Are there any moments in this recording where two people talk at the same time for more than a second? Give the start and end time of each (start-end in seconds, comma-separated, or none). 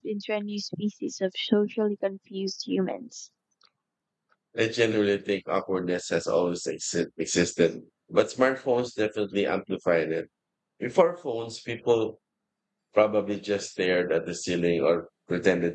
none